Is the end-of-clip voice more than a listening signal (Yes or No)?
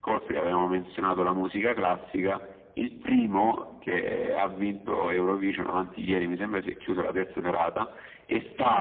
No